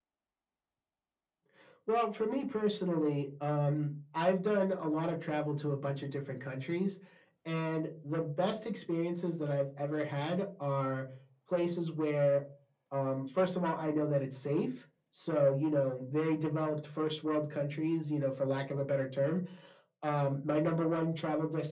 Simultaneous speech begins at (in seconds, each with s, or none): none